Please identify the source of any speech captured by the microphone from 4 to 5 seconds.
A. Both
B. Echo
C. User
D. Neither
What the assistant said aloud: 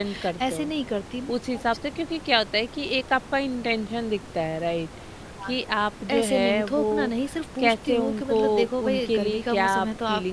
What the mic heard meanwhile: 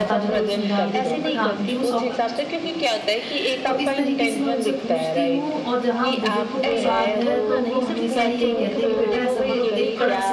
A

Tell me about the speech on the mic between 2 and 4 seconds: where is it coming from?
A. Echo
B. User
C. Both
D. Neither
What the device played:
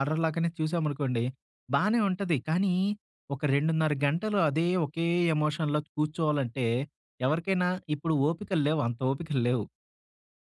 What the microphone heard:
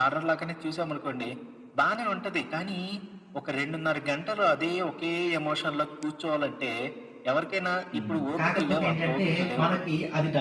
A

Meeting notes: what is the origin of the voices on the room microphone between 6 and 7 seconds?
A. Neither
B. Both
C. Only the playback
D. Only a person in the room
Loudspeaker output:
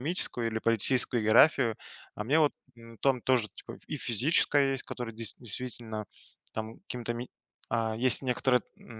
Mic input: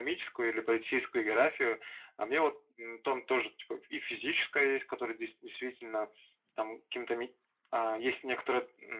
C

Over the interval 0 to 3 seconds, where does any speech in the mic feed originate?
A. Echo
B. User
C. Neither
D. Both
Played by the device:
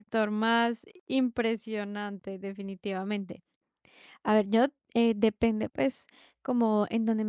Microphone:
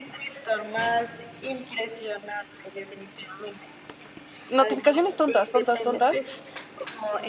A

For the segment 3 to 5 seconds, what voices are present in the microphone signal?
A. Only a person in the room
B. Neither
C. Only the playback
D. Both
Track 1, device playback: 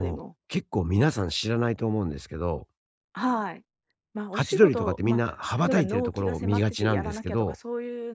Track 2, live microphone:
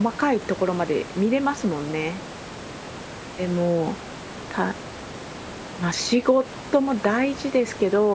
A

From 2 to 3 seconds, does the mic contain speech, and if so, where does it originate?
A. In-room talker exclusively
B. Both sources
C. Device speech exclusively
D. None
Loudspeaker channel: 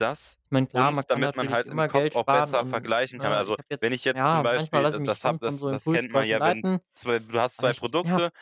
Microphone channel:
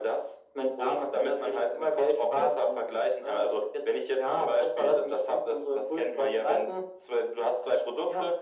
C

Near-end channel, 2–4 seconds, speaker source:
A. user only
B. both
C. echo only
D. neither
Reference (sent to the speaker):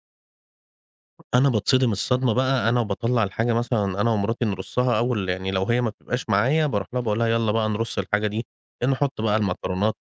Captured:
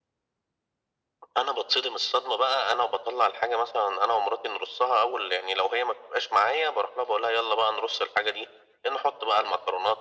C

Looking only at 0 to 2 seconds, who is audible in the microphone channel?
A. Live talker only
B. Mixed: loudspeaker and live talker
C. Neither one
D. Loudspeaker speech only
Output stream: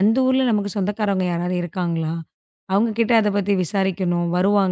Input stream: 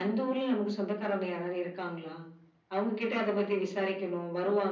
D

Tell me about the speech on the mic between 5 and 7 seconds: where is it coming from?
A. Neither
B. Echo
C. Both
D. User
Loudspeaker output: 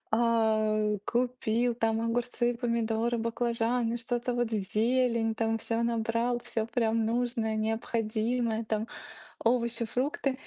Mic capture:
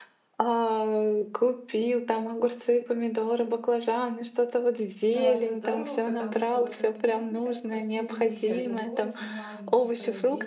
C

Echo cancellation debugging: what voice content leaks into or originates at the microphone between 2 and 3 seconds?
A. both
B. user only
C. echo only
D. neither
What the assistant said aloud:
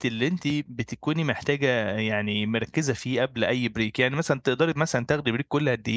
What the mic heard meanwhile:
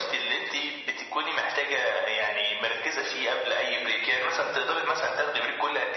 C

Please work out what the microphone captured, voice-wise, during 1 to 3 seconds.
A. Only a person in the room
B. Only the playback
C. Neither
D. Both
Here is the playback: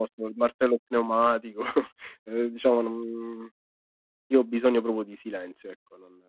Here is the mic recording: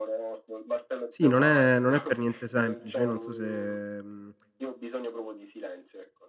D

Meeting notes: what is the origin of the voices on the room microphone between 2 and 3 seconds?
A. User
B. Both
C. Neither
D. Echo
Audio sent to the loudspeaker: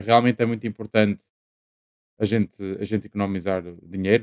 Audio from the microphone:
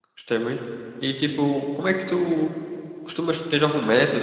A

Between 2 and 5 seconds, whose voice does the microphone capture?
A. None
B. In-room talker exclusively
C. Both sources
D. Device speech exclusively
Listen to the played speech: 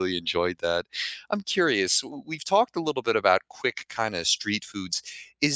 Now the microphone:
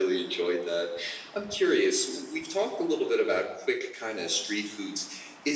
D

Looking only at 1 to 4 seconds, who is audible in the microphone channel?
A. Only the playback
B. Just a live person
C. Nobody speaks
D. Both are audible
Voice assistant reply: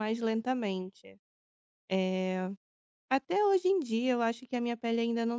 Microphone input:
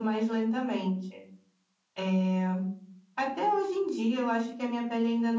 A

